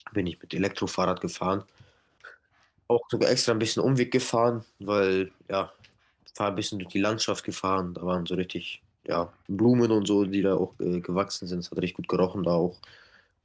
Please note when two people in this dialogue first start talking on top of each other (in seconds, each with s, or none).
none